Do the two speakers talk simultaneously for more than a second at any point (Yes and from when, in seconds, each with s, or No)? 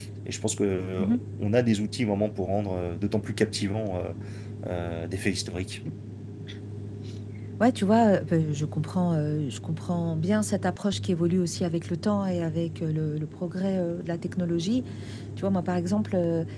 No